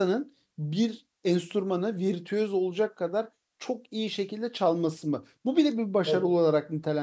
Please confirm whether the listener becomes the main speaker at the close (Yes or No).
No